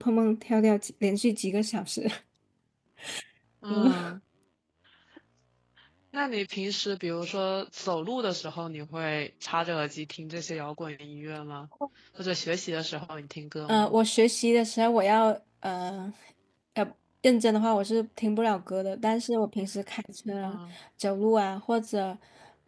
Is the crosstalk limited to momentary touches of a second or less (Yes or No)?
Yes